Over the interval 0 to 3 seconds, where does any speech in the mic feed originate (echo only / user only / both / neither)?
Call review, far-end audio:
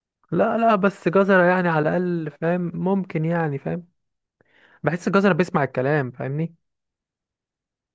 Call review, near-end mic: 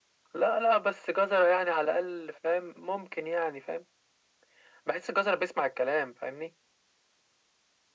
echo only